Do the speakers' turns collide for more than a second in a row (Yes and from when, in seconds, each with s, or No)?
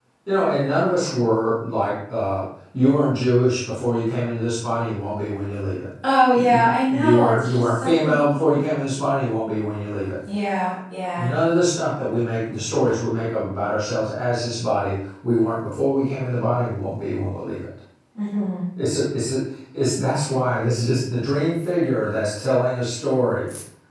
Yes, from 6.4 s